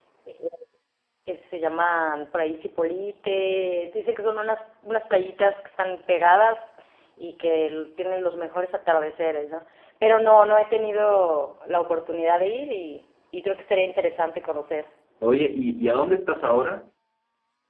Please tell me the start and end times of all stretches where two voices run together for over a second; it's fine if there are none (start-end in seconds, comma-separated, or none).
none